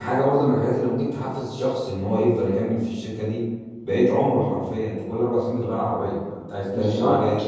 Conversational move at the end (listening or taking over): listening